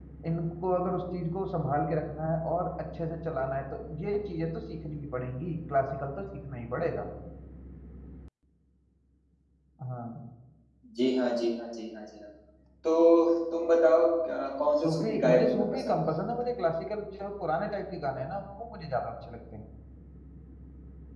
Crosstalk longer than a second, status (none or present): present